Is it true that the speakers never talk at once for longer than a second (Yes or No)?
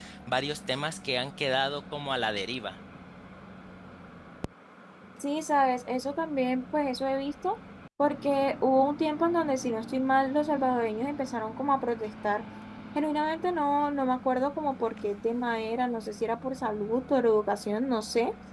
Yes